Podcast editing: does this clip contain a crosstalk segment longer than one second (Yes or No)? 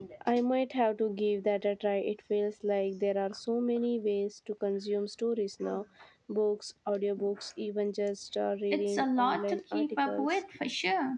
Yes